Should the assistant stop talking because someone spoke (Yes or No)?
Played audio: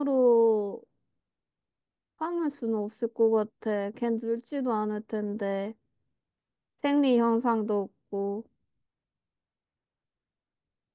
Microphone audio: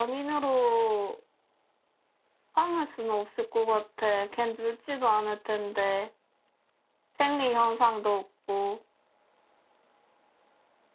No